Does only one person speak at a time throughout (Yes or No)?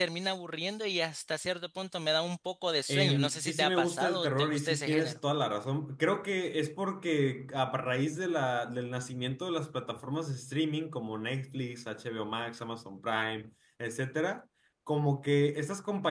No